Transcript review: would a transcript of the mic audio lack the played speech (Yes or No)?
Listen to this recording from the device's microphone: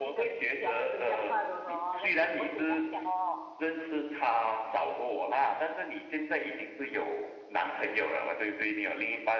No